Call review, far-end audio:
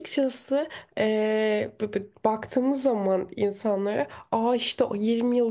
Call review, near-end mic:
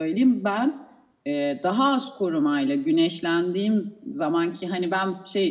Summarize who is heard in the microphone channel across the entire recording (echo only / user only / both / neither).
user only